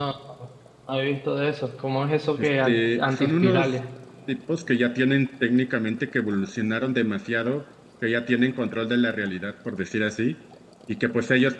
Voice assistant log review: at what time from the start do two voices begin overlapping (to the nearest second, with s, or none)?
2 s